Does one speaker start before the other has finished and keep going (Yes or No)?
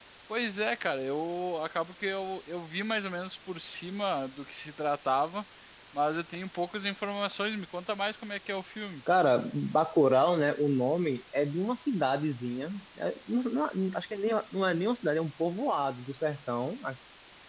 No